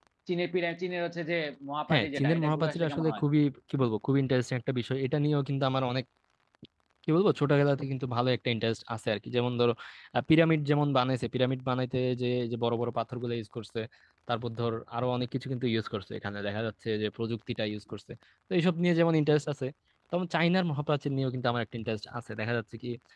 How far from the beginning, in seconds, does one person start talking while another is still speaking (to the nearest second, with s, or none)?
2 s